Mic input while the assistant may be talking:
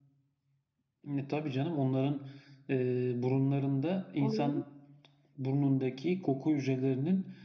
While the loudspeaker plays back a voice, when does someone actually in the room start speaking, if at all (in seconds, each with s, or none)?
4.2 s